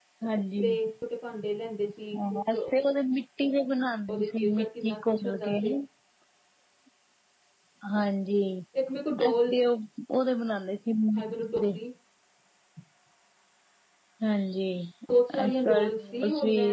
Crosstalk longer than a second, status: present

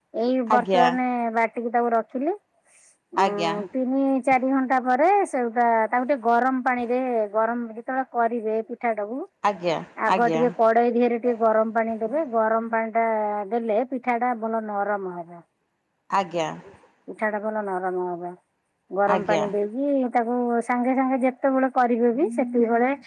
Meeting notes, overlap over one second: none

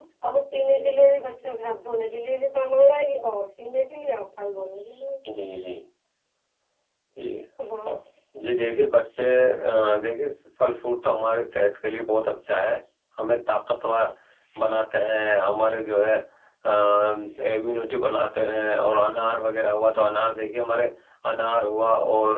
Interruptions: none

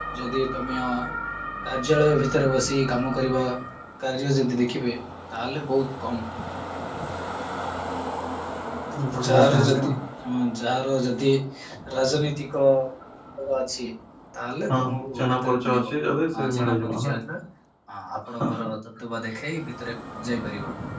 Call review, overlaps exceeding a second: present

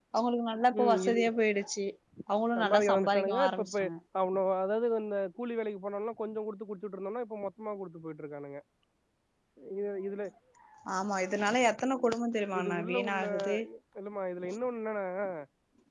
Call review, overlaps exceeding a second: present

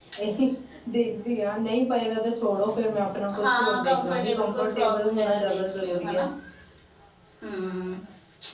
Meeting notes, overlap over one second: present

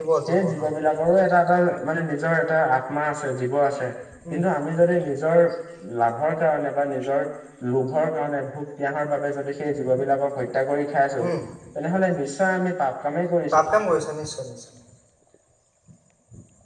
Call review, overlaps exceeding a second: none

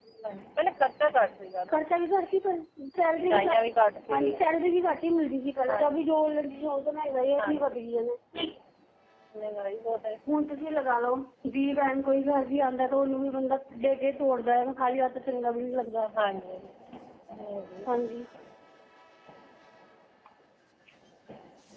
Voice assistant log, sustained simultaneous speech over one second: none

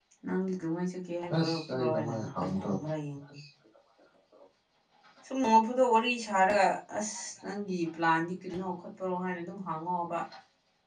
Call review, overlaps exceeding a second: present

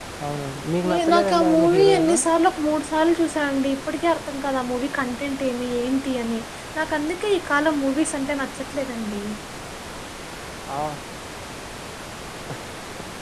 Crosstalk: present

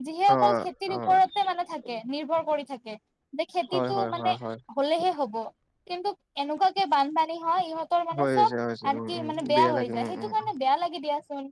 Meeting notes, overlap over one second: present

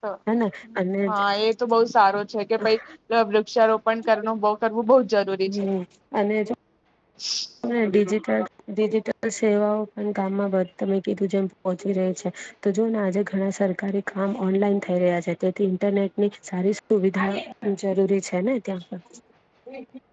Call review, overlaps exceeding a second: none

